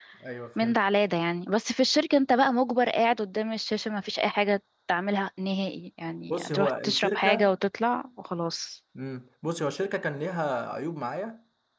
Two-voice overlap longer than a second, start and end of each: 6.3-7.6

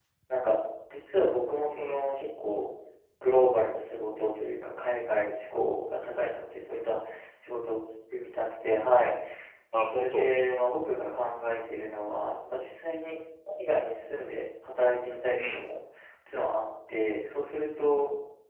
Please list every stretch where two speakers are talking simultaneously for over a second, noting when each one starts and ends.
none

